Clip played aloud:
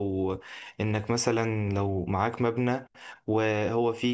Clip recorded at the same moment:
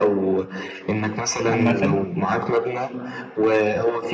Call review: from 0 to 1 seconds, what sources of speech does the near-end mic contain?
echo only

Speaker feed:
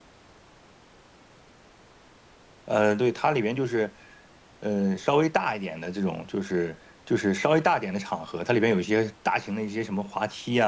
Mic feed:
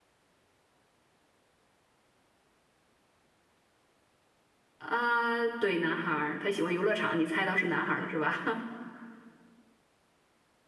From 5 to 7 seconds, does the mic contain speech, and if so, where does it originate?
user only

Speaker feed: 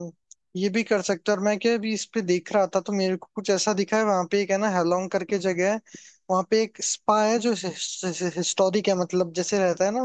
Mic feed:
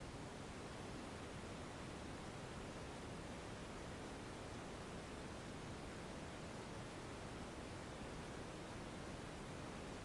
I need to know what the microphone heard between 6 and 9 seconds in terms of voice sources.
neither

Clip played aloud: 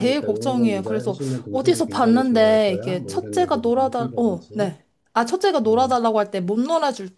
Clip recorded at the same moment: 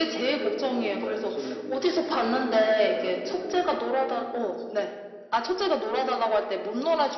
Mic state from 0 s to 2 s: echo only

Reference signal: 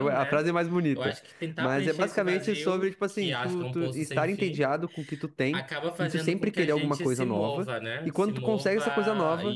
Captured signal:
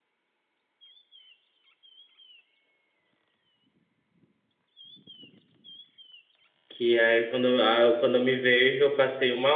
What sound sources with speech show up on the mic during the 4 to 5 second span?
neither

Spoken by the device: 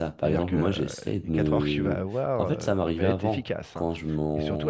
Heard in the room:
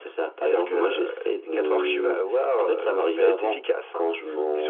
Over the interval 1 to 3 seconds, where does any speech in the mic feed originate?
echo only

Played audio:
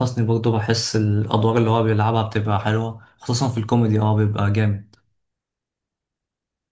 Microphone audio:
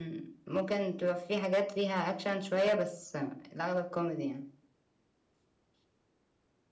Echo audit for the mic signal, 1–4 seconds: user only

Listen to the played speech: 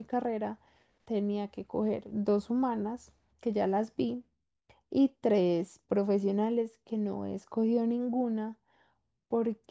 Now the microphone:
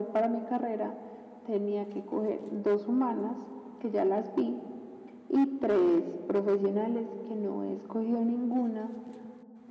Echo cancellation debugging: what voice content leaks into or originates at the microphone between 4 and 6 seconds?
echo only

